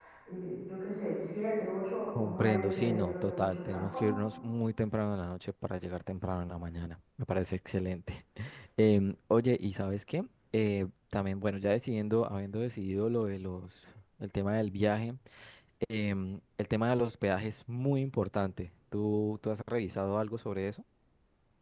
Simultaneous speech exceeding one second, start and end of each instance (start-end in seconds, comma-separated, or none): 2.1-4.1